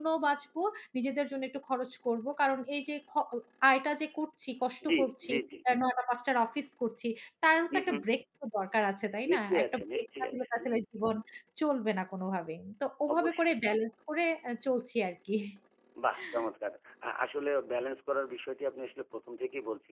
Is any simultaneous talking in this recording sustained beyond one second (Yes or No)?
Yes